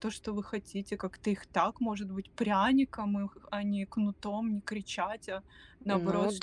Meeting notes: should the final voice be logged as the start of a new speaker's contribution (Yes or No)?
Yes